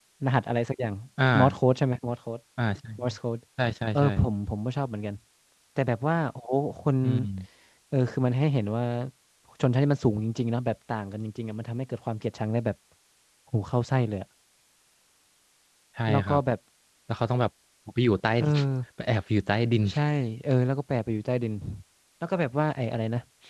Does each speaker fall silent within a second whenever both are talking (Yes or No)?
Yes